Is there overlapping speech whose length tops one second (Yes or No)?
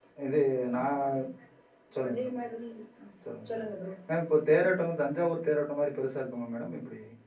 No